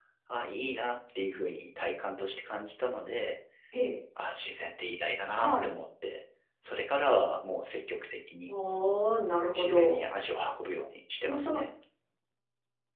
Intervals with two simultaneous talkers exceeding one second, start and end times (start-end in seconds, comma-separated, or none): none